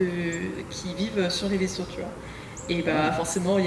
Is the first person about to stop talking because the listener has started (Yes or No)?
No